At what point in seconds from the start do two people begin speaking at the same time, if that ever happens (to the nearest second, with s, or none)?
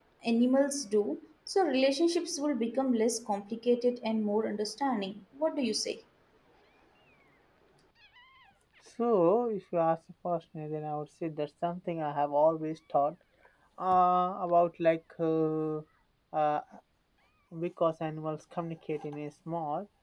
none